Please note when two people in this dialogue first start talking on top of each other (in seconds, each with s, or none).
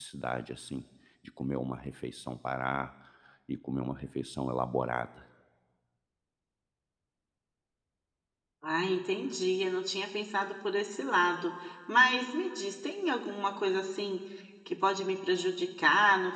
none